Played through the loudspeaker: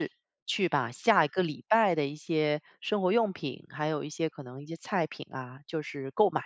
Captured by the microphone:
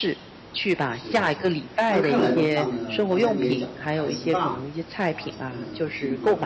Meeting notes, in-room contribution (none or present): present